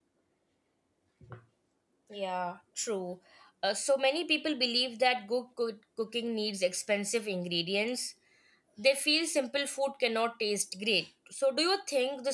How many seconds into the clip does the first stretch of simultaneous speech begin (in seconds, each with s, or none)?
none